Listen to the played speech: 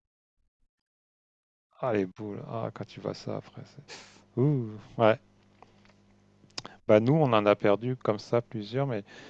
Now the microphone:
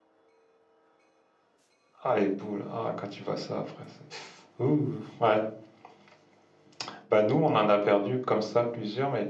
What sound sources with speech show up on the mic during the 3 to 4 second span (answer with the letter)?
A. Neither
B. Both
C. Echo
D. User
C